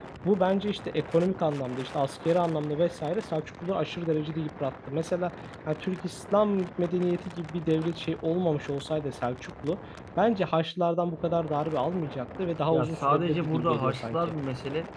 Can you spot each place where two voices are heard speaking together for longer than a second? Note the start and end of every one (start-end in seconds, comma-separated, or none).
12.7-14.2